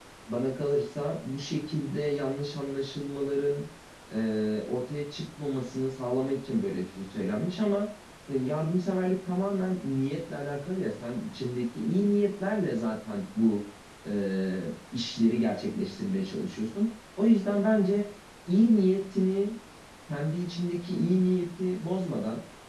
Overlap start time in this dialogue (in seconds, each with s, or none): none